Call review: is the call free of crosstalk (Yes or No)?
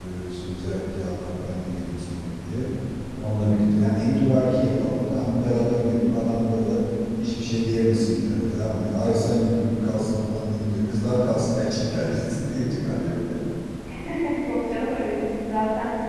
Yes